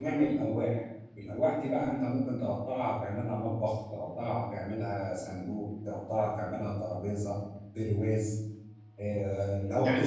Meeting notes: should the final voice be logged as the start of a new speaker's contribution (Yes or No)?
Yes